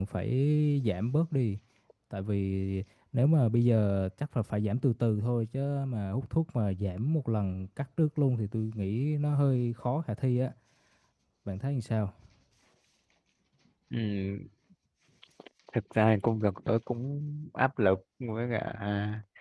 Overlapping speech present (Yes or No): No